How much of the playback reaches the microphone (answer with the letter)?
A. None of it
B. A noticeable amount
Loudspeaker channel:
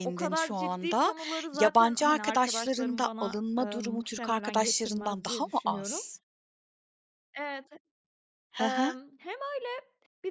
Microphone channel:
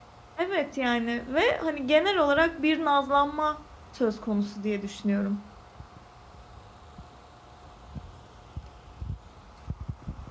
A